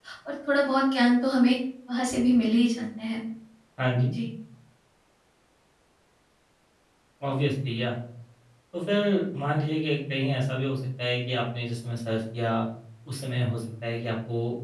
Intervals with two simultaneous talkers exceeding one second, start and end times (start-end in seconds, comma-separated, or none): none